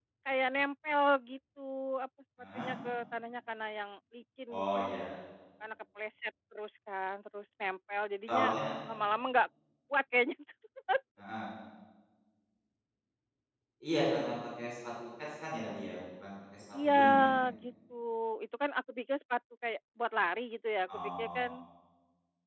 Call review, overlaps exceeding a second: none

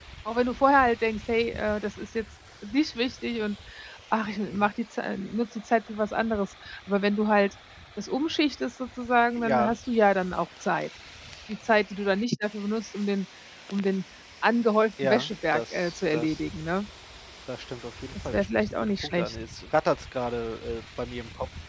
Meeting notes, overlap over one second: present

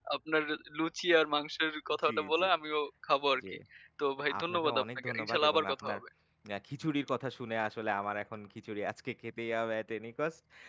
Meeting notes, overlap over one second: present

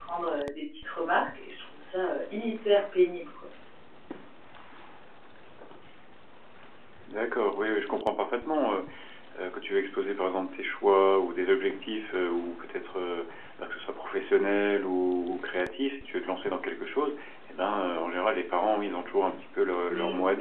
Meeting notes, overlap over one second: none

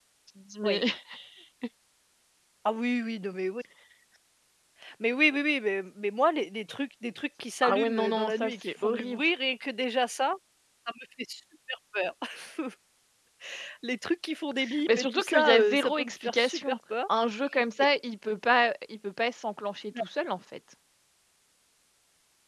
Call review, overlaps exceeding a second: present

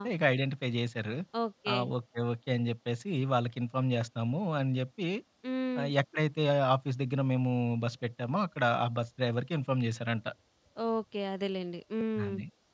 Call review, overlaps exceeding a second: none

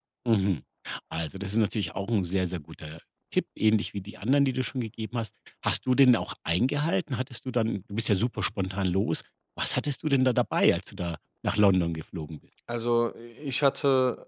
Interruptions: none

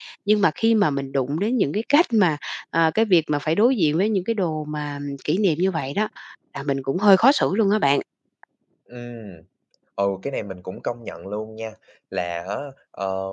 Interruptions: none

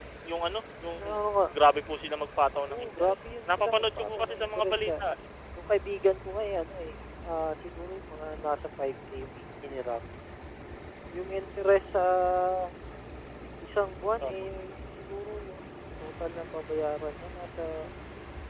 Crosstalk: present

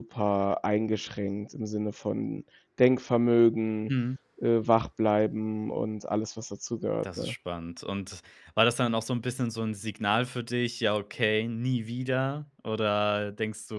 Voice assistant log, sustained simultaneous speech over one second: none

